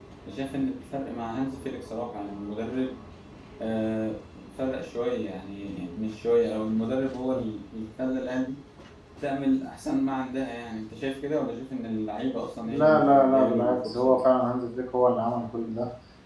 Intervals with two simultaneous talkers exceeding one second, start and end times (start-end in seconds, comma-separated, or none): 12.6-14.2